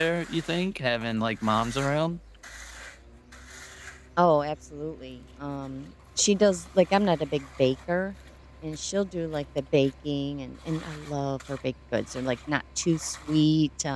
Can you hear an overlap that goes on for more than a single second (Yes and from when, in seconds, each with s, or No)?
No